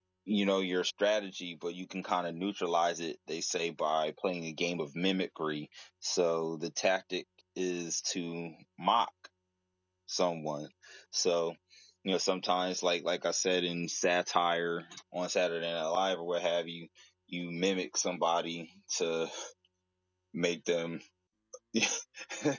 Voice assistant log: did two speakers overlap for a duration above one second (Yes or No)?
No